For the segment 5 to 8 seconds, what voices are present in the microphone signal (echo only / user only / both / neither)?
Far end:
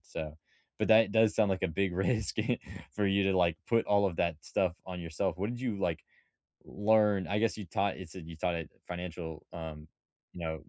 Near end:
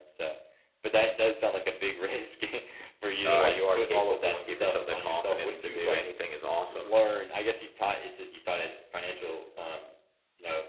both